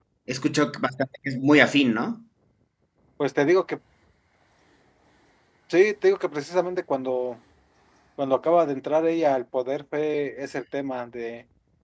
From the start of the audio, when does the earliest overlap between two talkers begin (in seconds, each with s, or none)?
none